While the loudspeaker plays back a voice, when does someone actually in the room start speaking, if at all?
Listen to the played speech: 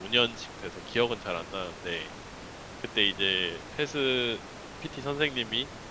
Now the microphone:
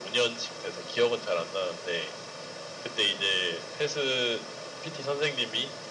none

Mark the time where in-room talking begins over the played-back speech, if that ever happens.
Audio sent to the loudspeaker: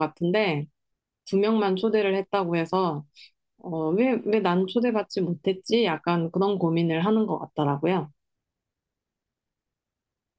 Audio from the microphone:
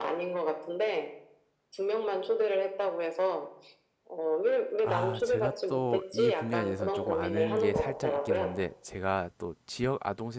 4.8 s

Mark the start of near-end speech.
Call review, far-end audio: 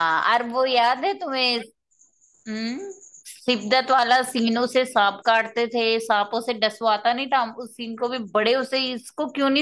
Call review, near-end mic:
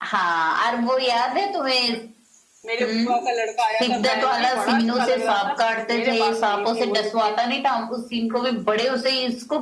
2.7 s

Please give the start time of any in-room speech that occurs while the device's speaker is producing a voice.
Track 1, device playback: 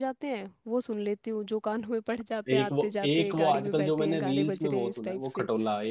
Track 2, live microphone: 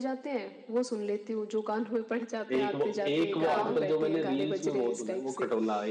3.5 s

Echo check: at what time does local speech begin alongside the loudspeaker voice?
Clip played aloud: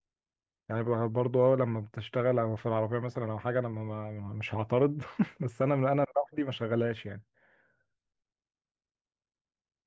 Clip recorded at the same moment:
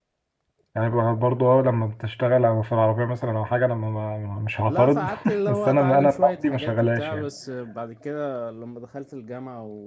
4.7 s

